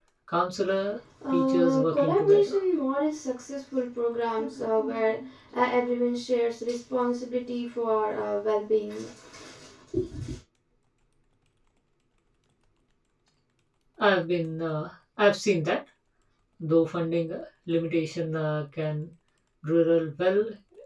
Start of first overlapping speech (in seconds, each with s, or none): 1.2 s